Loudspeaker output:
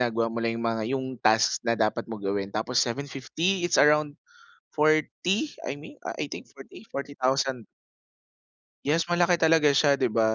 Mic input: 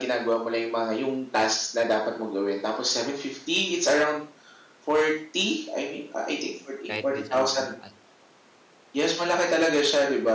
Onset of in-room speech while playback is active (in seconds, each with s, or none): 6.9 s